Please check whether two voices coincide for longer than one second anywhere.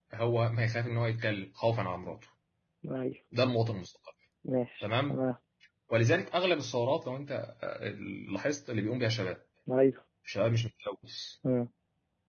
No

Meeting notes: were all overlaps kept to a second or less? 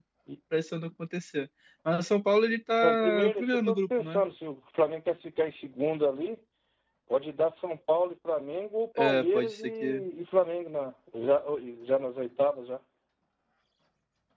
No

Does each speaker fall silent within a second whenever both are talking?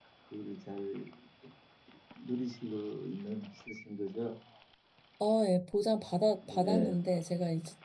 Yes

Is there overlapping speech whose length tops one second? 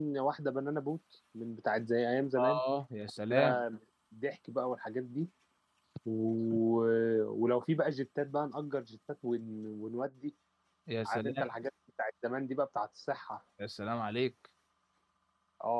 No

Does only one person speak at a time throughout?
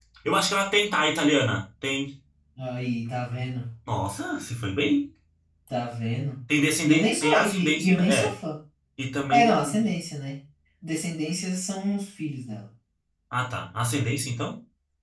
No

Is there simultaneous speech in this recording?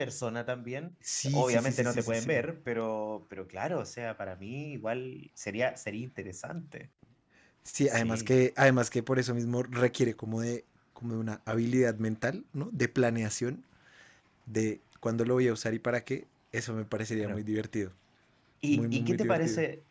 Yes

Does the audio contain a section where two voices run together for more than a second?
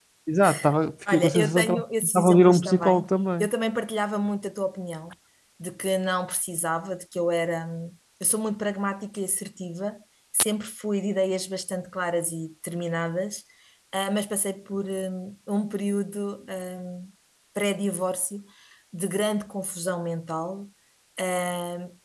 Yes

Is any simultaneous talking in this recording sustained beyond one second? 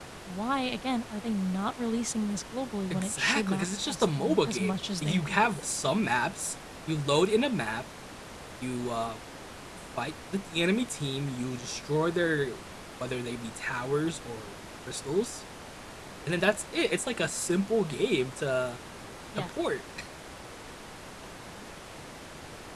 Yes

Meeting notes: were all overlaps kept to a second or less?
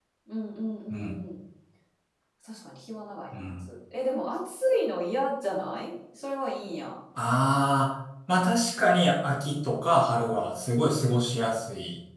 Yes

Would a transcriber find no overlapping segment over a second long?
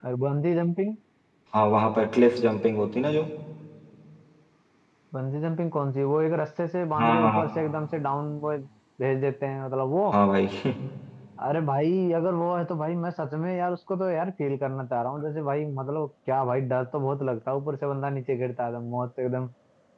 Yes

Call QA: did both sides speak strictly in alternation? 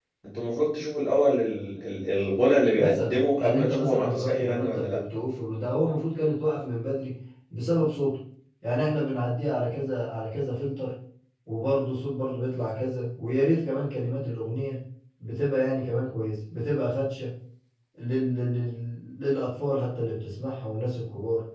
No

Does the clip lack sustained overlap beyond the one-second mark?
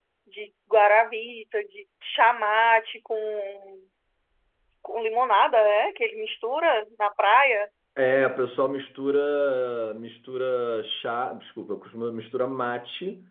Yes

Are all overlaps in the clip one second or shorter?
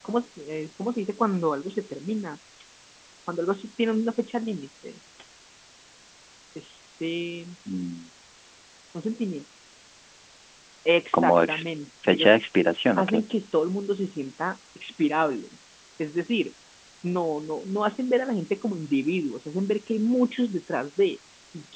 Yes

